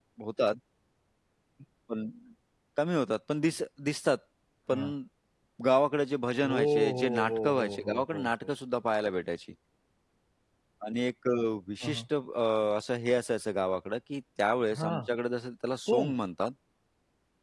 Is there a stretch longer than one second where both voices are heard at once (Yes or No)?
Yes